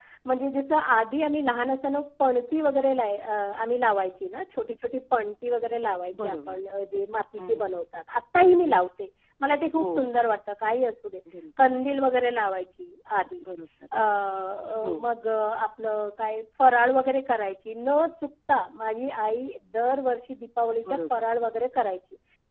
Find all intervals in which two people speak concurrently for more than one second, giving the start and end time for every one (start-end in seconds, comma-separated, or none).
none